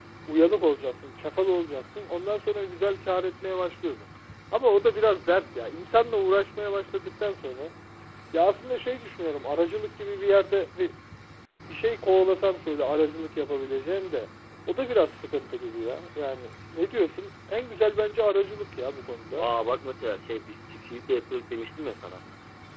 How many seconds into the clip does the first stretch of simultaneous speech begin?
none

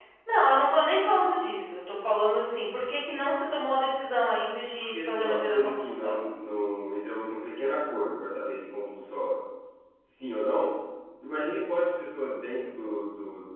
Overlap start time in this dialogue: 4.8 s

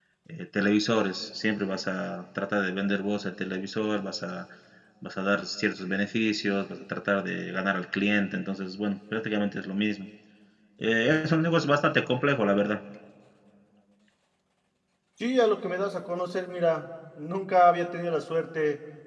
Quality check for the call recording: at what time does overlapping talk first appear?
none

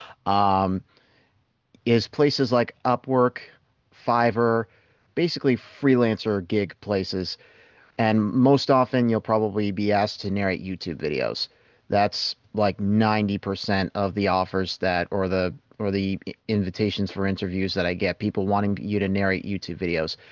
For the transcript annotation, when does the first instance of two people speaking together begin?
none

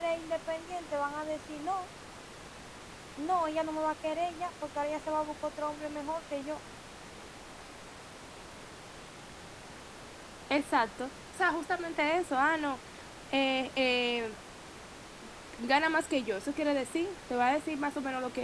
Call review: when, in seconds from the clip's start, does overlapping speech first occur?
none

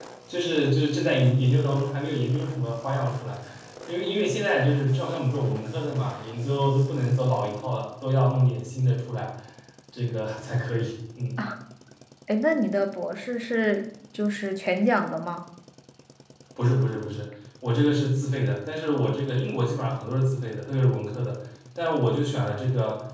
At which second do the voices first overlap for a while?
none

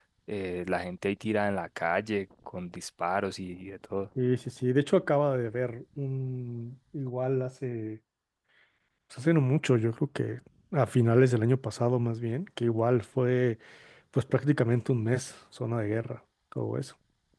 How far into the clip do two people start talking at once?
none

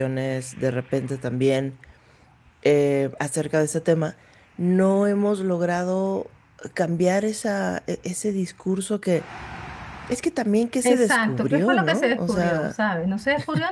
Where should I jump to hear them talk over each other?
10.9 s

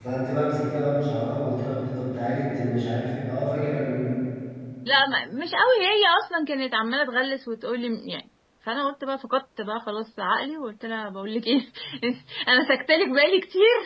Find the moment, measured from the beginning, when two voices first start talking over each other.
none

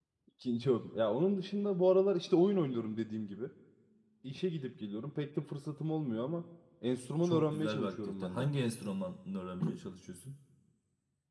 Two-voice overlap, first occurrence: 7.2 s

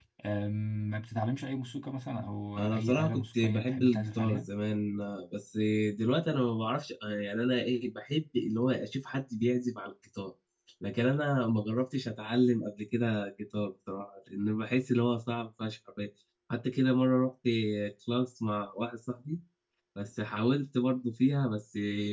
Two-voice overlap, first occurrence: 2.6 s

